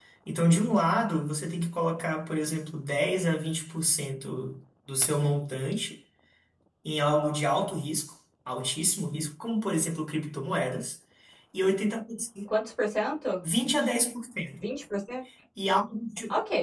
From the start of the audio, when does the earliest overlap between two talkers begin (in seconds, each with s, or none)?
none